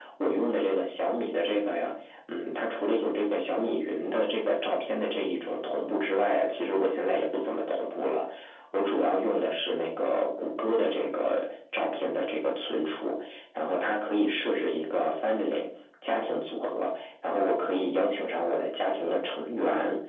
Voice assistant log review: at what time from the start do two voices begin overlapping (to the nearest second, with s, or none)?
none